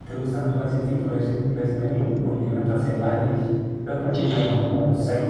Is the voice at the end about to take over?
No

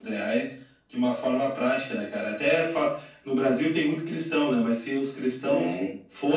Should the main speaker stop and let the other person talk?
No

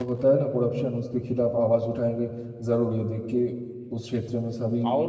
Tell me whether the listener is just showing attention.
No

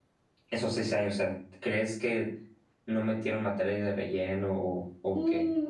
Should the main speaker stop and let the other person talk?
Yes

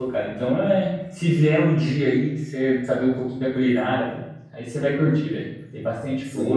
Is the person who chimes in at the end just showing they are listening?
No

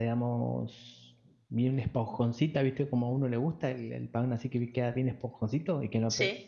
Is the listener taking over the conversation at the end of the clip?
No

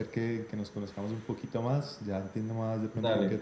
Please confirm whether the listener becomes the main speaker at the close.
No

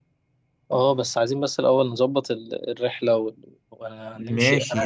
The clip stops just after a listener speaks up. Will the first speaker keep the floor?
No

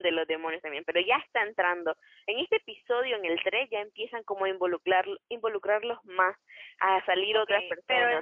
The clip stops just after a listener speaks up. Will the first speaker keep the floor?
No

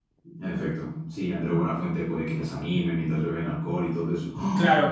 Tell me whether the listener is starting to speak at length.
Yes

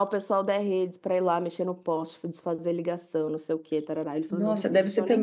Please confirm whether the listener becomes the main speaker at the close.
Yes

